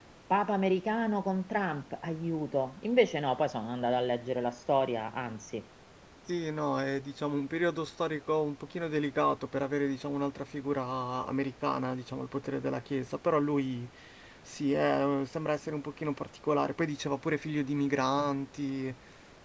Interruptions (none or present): none